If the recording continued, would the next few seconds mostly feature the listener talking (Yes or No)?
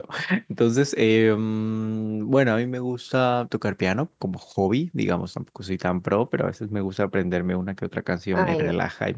Yes